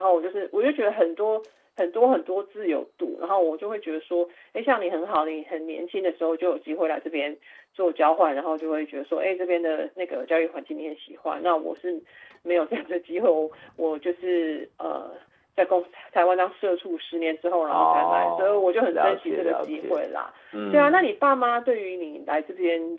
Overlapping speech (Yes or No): Yes